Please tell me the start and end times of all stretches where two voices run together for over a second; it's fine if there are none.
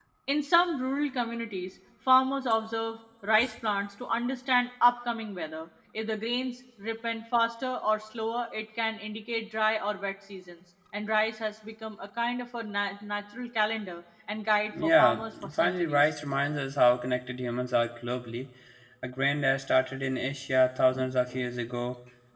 14.8-16.1

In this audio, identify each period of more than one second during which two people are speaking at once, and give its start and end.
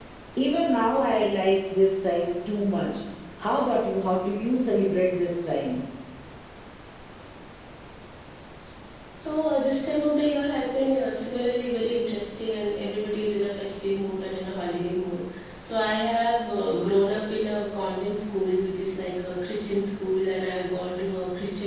none

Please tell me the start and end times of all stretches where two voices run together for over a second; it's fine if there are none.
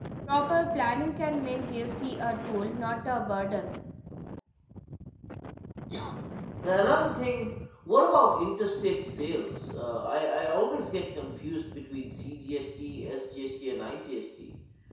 none

